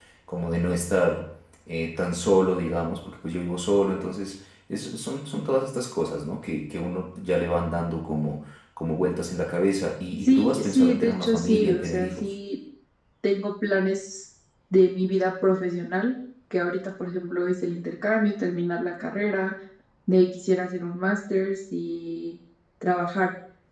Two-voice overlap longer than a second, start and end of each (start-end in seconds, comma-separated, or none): 10.2-12.3